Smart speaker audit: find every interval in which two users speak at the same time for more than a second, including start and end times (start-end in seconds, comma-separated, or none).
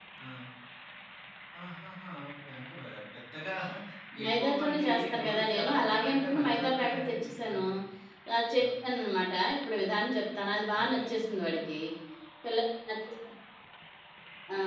4.2-7.7